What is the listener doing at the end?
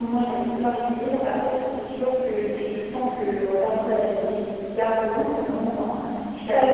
listening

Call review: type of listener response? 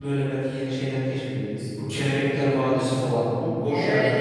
taking over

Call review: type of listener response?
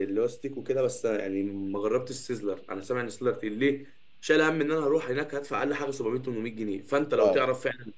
listening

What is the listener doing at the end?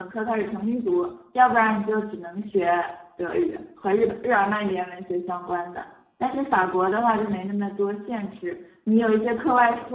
listening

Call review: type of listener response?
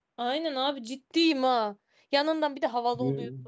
listening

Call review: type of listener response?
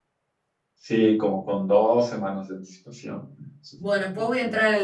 taking over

